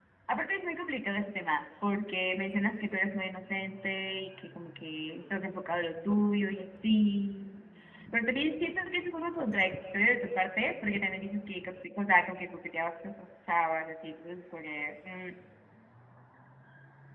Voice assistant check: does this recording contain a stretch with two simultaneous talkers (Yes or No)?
No